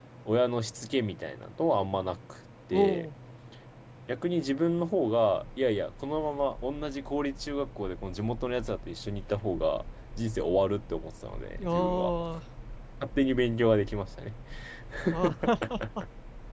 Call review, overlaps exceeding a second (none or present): none